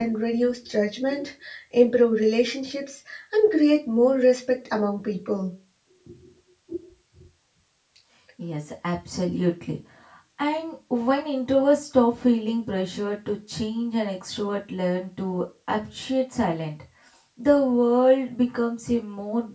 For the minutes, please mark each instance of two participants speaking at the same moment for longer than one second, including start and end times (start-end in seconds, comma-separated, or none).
none